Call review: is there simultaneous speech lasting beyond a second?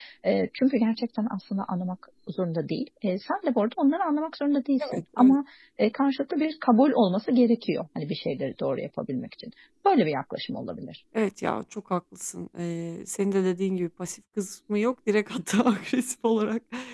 No

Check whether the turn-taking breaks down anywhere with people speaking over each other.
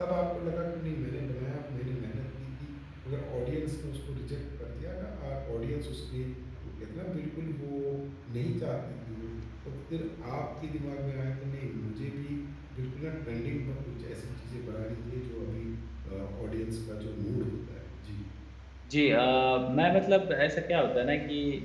No

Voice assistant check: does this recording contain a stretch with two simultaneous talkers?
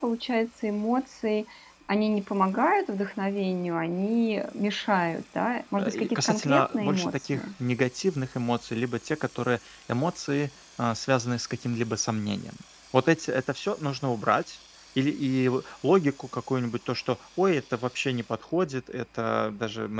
Yes, from 5.8 s

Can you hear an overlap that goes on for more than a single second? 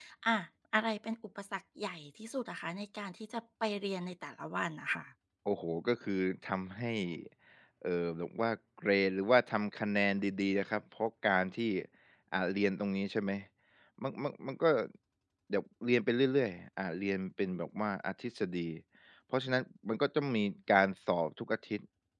No

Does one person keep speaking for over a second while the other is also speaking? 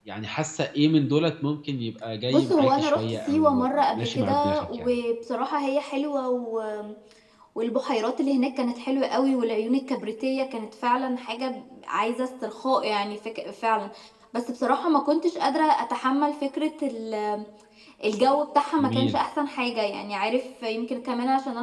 Yes, from 2.3 s

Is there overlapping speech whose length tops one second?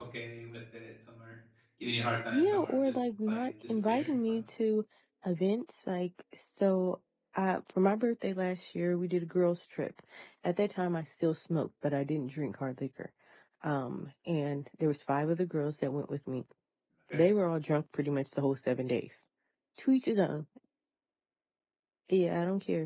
Yes, from 2.3 s

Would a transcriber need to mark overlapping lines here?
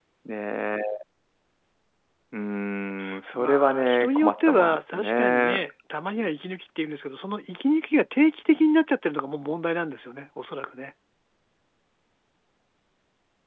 Yes, from 3.3 s

